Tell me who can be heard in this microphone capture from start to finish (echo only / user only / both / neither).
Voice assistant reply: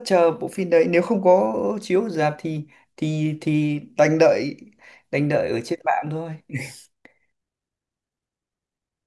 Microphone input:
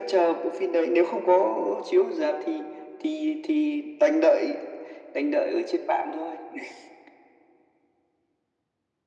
echo only